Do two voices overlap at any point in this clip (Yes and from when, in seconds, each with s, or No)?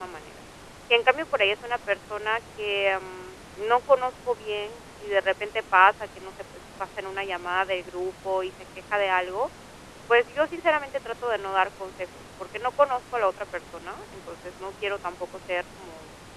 No